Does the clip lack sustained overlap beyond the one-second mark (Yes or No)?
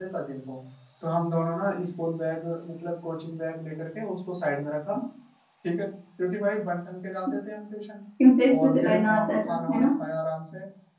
No